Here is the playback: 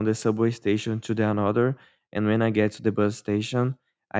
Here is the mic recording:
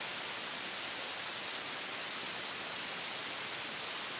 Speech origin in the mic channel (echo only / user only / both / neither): neither